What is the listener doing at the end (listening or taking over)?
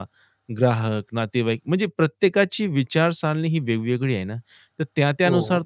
listening